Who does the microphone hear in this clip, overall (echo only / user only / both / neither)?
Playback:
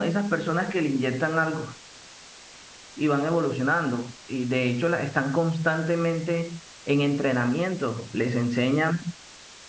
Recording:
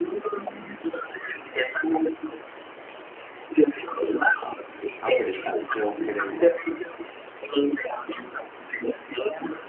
both